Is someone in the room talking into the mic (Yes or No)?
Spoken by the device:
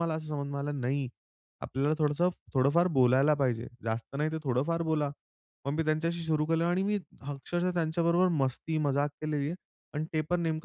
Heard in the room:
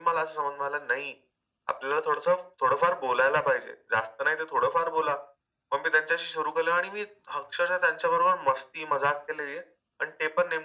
No